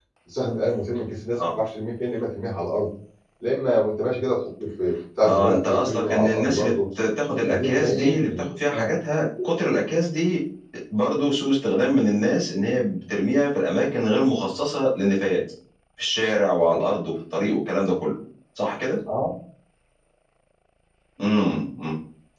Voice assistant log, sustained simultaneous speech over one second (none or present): present